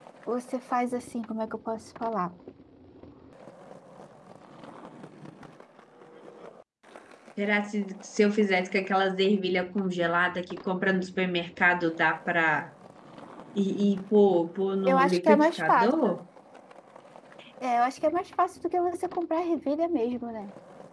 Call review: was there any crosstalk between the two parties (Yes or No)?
Yes